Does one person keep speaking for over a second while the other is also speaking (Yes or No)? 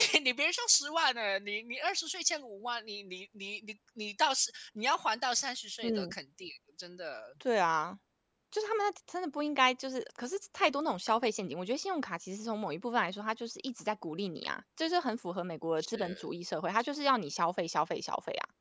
No